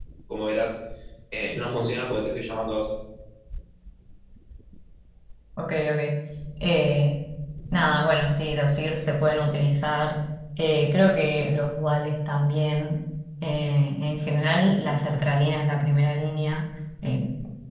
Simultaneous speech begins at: none

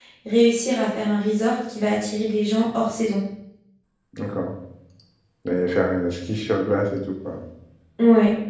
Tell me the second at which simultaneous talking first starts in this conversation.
none

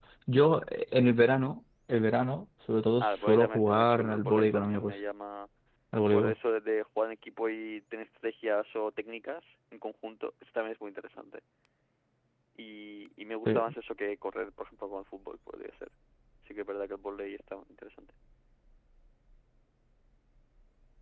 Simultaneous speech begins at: 3 s

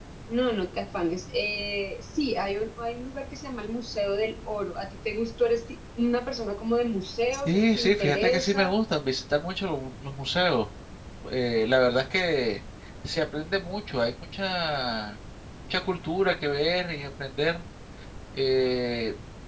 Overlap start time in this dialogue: 7 s

